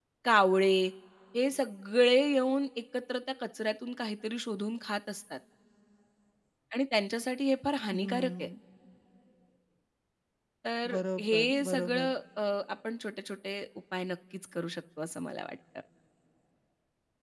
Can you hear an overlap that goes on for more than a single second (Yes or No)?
Yes